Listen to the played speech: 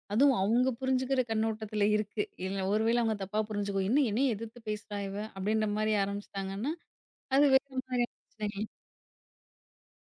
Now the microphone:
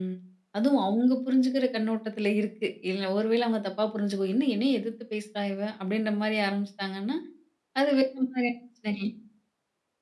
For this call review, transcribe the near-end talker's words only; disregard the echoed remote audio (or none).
none